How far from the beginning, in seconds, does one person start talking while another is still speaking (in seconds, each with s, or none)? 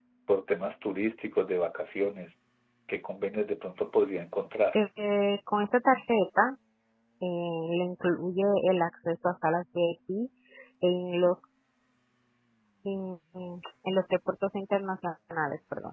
none